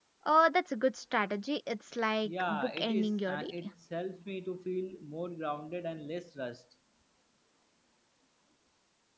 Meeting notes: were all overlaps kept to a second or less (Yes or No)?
No